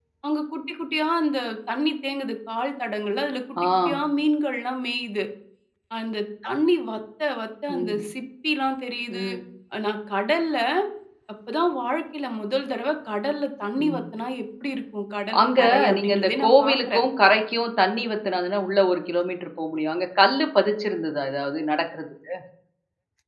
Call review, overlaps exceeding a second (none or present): present